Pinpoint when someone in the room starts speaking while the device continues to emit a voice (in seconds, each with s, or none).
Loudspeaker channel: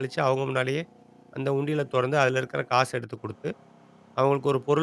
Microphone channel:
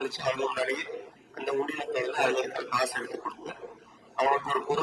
none